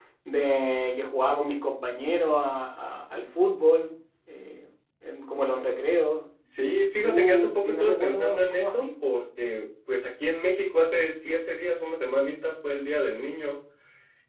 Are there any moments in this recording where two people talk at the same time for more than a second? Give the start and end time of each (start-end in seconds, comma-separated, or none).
7.0-8.9